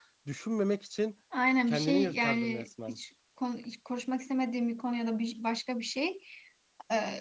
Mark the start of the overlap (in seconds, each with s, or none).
1.7 s